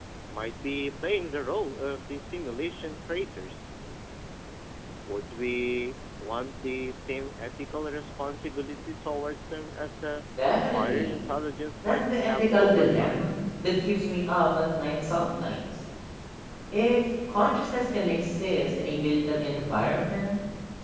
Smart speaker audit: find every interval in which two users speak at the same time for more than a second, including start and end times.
11.9-13.2

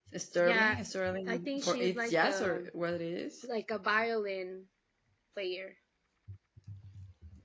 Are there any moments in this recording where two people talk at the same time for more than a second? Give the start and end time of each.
1.3-2.7

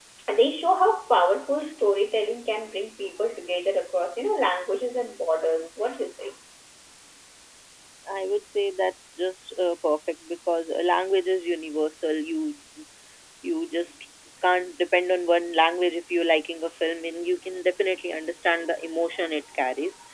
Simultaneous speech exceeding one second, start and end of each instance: none

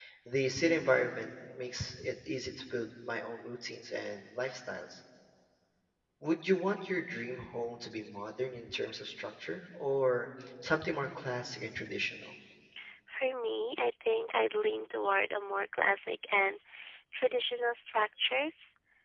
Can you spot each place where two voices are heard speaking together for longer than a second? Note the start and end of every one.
none

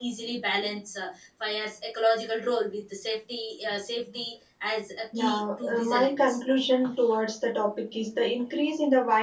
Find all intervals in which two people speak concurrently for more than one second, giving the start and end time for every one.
5.2-6.4

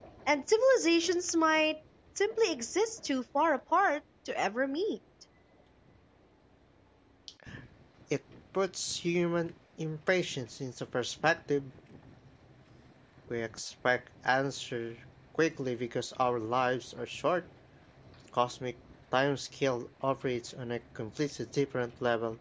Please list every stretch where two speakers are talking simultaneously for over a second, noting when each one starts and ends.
none

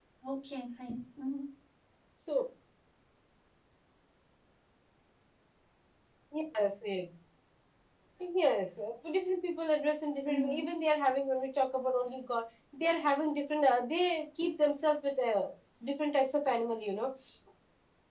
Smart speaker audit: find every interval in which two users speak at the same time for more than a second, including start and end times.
none

